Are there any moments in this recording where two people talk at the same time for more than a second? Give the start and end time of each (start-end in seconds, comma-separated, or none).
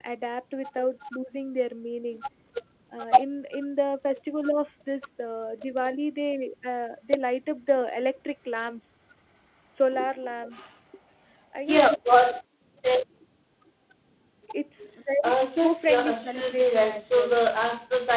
15.2-17.3